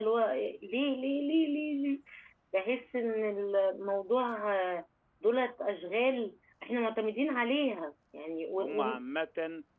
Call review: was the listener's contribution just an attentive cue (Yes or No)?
No